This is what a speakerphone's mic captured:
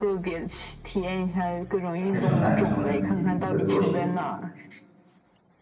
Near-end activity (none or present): present